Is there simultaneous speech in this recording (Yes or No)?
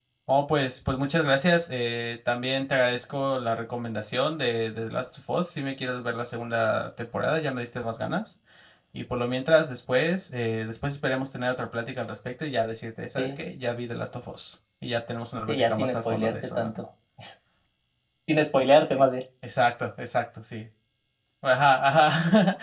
Yes